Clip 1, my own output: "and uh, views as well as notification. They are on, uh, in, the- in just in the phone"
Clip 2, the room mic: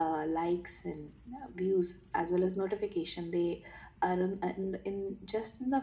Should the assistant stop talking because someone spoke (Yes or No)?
No